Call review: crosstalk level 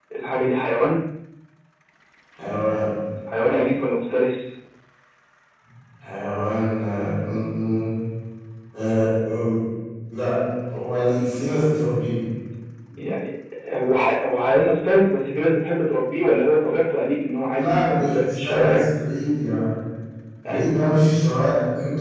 present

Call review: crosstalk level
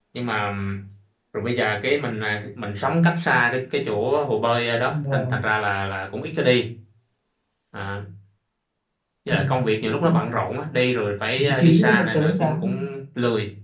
present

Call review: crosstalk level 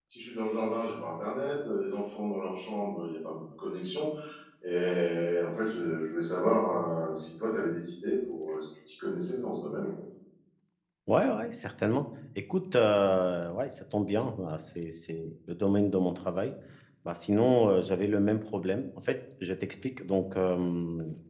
none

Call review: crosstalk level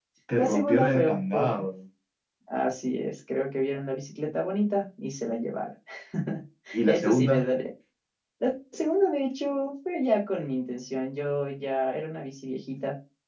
present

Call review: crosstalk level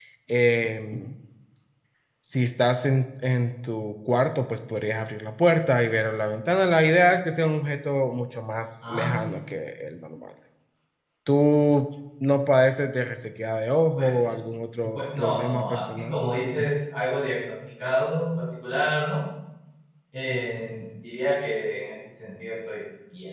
present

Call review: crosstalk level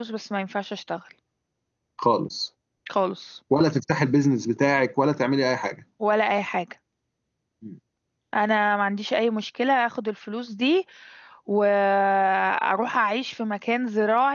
none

